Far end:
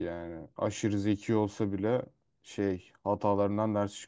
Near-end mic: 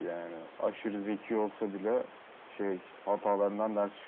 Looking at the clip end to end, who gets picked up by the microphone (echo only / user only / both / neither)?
echo only